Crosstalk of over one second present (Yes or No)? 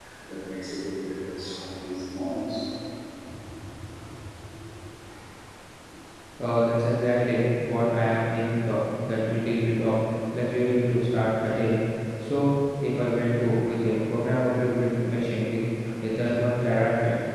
No